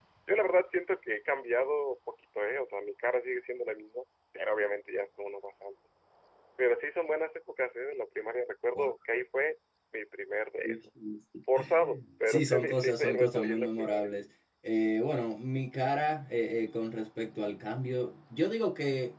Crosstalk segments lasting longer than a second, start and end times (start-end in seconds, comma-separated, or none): 12.3-14.1